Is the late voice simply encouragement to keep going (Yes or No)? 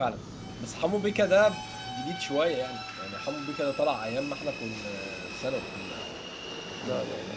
No